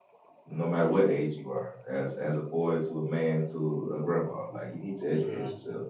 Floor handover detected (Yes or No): Yes